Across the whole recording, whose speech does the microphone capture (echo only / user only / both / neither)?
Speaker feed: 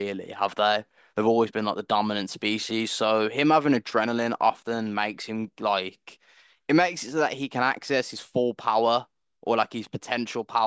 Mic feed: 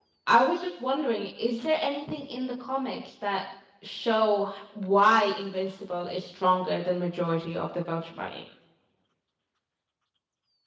user only